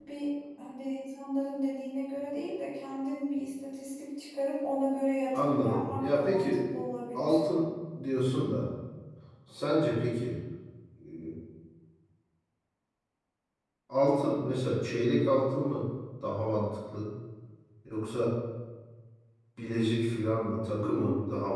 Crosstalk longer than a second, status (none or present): present